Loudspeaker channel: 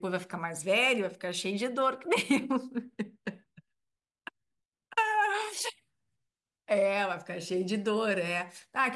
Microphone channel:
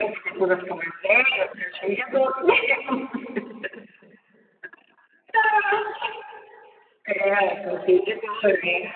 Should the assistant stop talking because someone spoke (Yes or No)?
No